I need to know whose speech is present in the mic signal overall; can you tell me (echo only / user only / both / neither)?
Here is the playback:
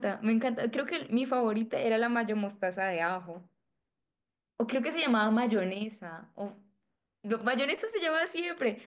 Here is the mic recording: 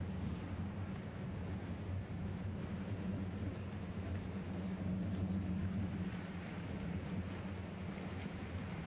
neither